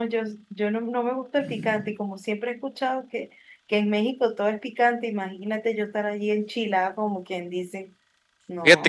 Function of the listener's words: taking over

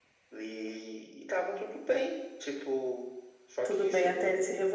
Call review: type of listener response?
taking over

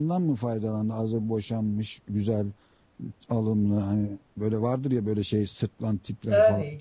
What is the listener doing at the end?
taking over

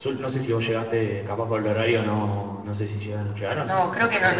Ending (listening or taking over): taking over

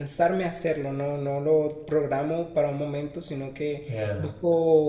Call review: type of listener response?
listening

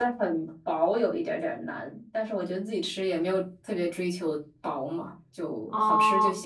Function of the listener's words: taking over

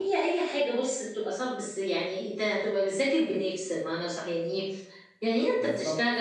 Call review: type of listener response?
listening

